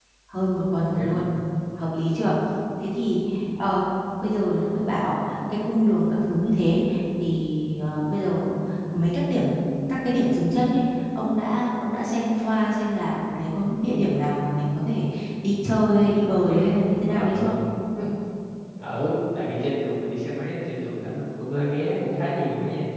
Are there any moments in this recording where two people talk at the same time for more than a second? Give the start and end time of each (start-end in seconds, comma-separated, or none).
none